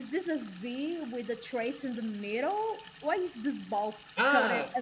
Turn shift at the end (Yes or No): Yes